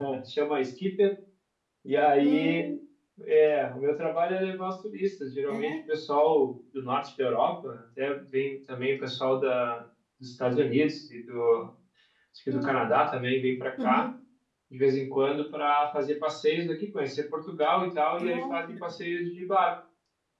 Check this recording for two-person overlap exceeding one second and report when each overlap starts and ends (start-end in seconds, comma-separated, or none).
none